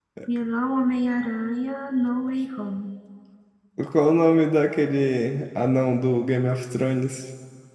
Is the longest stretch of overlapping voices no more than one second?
Yes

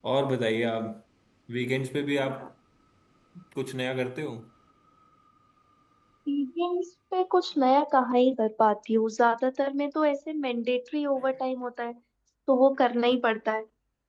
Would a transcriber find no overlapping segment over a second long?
Yes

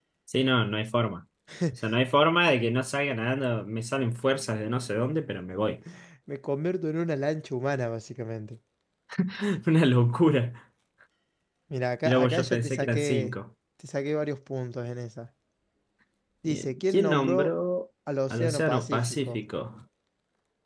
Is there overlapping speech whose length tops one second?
Yes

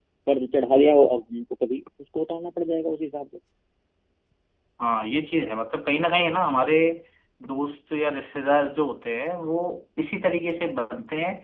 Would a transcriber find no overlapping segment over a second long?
Yes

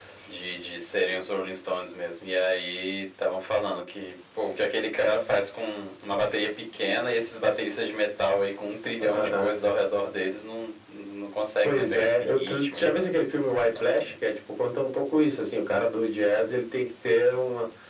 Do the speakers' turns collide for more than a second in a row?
Yes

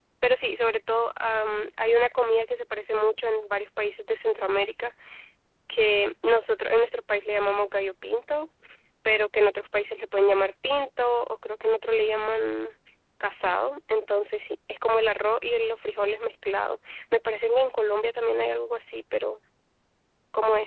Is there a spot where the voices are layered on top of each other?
No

